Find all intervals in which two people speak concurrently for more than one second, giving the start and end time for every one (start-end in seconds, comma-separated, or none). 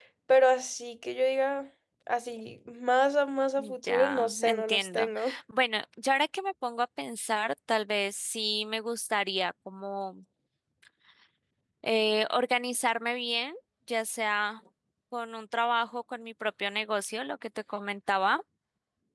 3.9-5.3